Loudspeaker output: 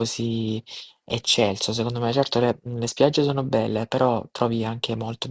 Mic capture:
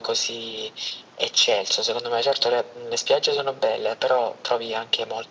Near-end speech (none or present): none